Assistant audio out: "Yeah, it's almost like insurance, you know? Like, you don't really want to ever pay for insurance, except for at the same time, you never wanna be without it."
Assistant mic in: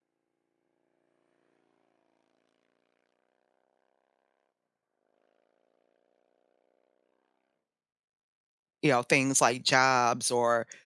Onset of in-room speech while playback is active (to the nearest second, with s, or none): 9 s